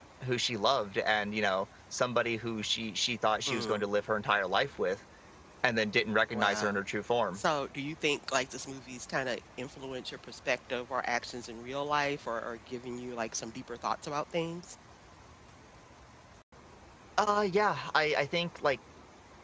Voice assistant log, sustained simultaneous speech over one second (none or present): none